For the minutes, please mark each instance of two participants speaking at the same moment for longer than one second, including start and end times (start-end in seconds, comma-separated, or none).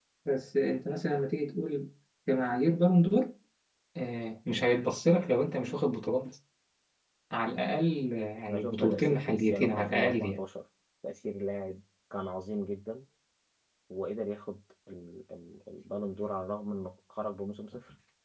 8.5-10.4